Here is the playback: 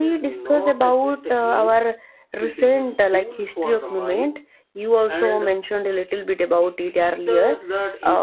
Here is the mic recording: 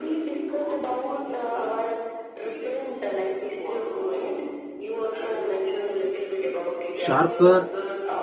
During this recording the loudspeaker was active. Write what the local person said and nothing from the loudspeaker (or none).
sharper